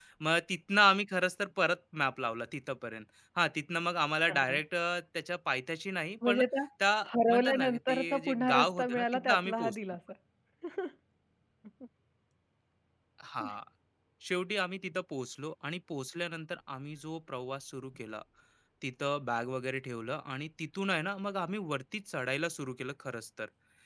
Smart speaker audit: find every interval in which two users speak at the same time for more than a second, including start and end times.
7.3-9.8

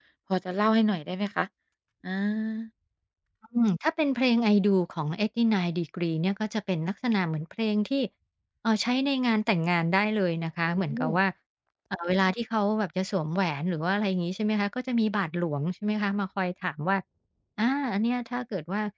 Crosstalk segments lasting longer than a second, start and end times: none

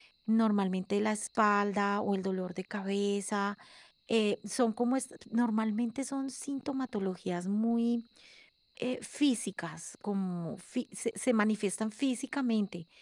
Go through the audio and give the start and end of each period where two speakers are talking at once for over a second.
none

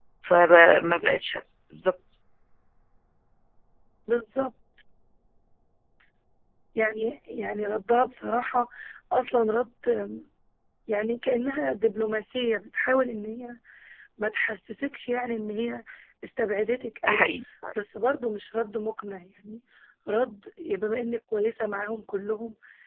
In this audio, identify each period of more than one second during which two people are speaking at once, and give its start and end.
none

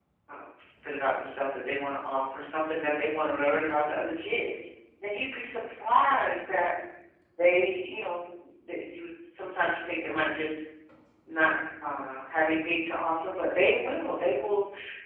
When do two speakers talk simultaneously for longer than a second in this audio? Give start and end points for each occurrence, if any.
none

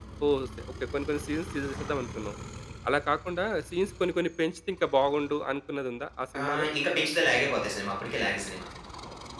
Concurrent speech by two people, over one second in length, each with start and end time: none

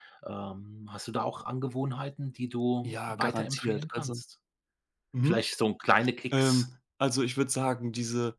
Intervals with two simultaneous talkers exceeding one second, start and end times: 2.8-4.2

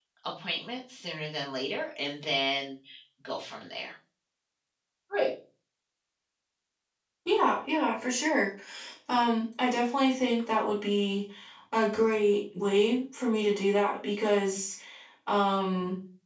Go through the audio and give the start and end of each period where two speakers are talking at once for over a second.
none

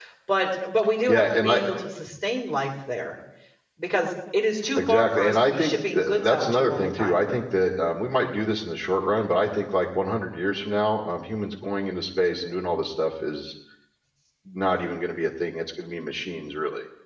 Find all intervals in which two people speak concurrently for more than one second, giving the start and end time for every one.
4.8-7.2

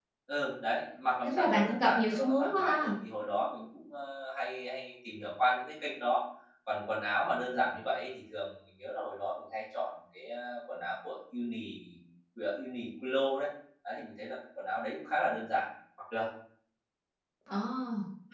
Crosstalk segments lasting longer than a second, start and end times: 1.2-2.9

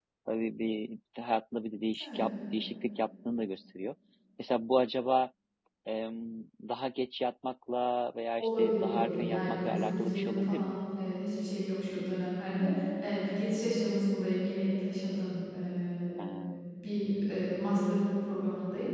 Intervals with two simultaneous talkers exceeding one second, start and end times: 8.4-10.8

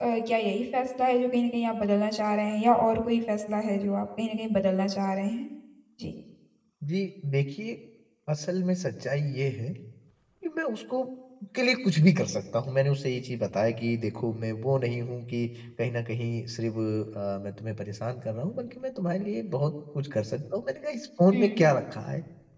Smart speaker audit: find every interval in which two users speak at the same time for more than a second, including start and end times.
none

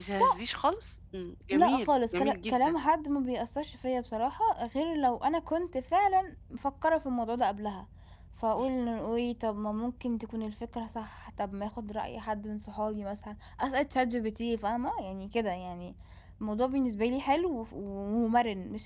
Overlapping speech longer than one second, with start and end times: 1.5-2.8

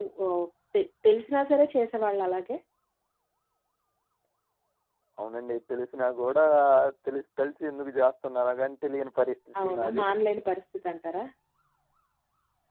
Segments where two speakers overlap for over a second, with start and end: none

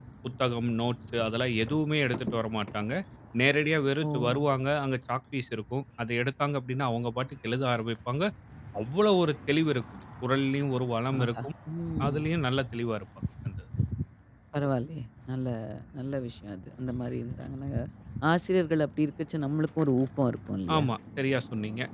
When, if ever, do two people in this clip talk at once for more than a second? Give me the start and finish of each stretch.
none

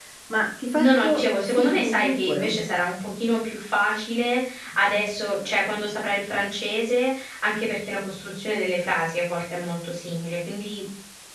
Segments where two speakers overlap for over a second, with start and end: 0.7-2.6

